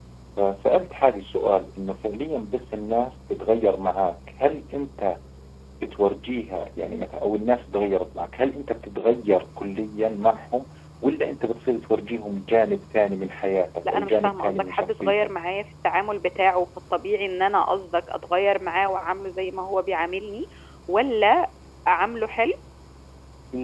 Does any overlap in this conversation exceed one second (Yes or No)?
Yes